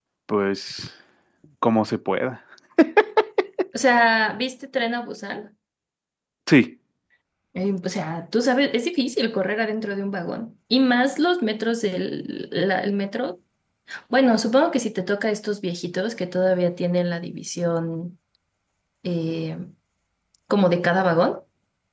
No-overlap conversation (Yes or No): Yes